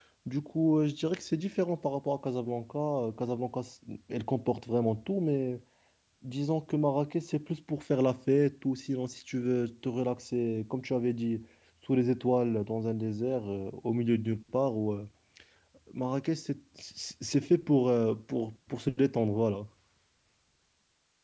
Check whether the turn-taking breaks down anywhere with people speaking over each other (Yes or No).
No